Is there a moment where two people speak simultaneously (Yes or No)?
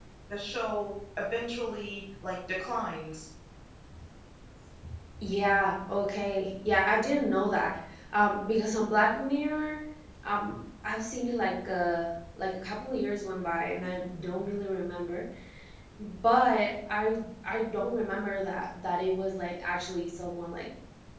No